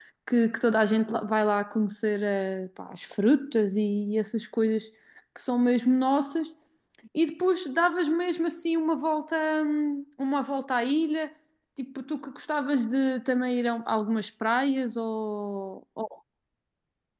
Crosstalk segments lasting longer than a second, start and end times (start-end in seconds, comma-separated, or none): none